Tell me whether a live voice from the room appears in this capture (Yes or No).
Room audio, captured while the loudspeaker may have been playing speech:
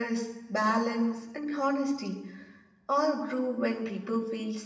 No